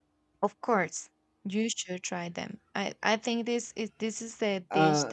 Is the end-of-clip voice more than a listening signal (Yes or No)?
No